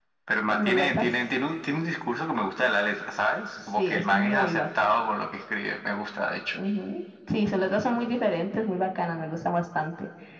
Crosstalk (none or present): present